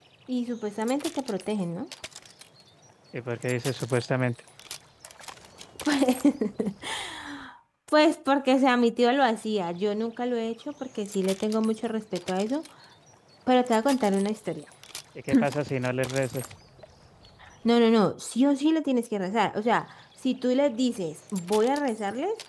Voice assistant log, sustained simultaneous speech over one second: none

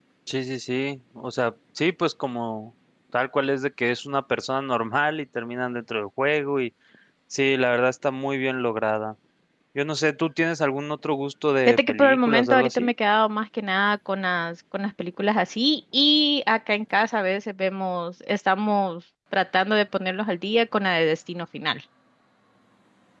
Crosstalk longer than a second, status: present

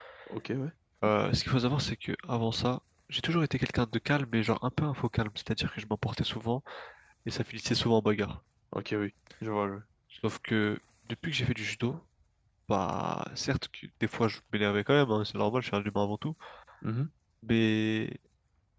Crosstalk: none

